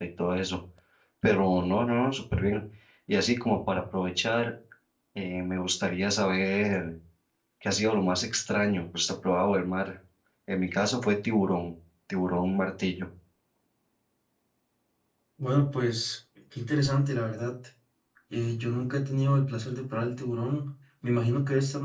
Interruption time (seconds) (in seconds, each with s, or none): none